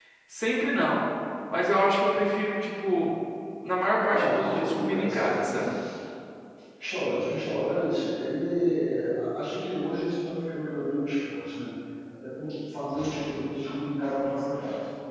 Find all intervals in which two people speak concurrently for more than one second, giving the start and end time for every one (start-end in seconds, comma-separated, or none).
4.1-5.5